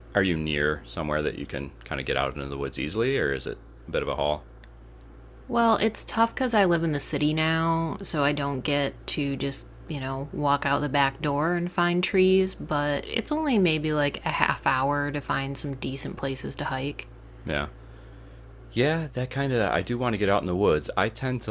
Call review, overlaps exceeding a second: none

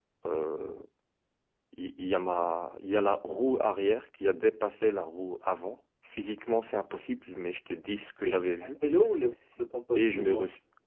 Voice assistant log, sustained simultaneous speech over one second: none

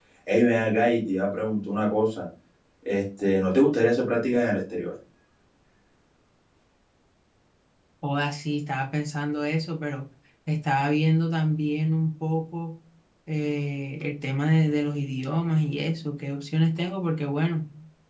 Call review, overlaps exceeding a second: none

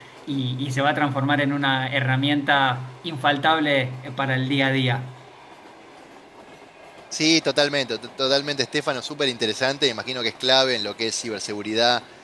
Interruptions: none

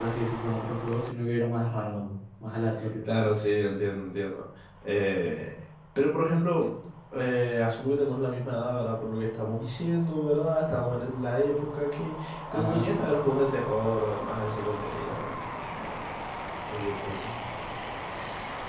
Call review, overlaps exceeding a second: none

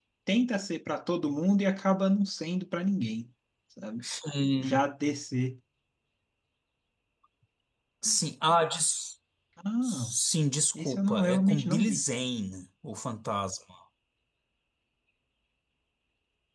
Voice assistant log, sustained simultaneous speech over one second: present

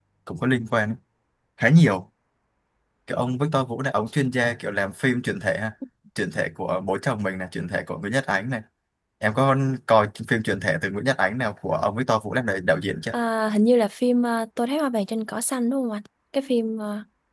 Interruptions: none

